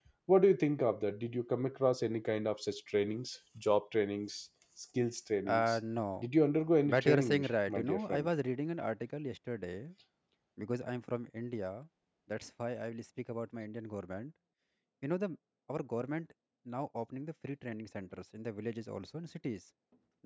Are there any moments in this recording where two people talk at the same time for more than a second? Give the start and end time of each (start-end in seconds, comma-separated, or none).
6.9-8.3